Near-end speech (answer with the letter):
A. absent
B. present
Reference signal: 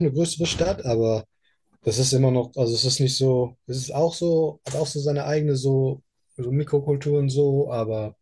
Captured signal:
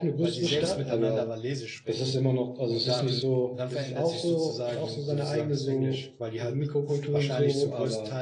B